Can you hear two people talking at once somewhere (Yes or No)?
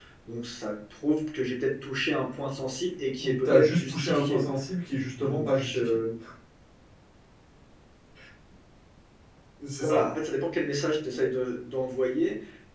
Yes